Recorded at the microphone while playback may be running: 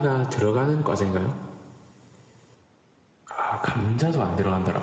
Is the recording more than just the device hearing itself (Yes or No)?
No